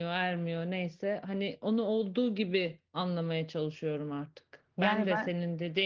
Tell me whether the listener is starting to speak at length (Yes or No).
No